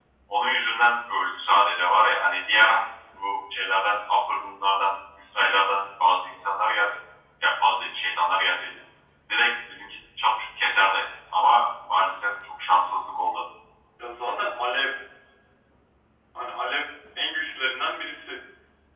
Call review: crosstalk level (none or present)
none